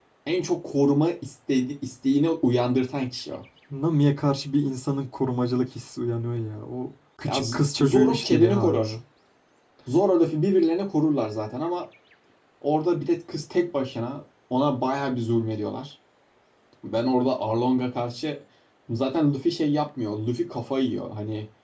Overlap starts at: 7 s

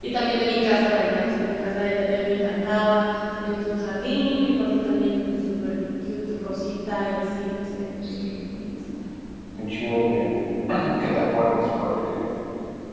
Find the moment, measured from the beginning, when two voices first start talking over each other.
none

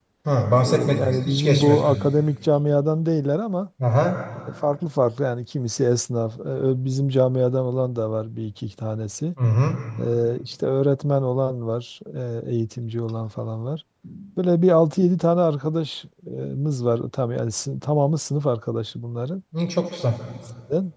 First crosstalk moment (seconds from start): 1 s

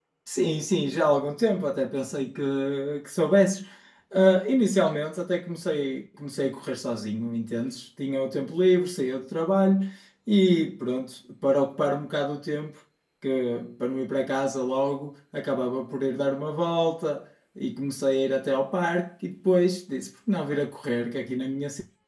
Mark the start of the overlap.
none

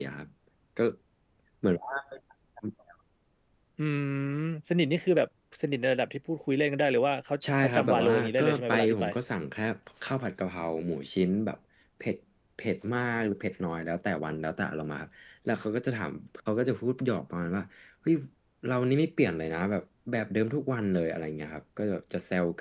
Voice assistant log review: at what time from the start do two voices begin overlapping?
7 s

